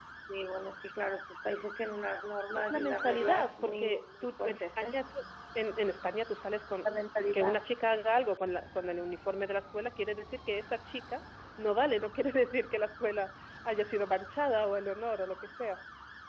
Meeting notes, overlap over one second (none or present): present